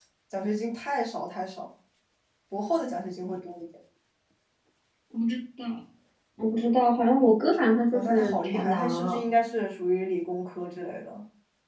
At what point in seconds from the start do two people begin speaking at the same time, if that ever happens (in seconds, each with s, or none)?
7.9 s